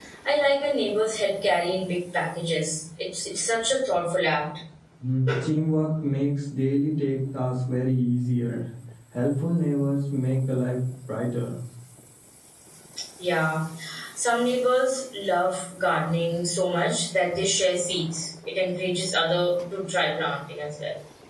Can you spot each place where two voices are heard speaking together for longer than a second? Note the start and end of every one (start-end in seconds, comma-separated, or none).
none